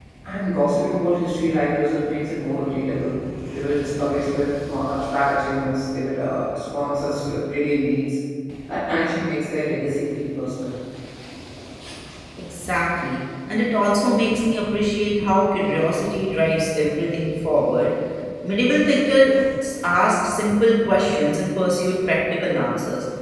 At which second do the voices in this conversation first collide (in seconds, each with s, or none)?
none